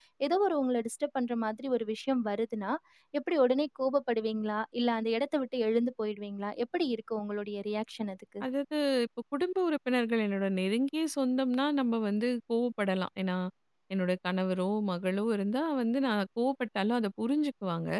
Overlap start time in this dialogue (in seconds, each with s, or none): none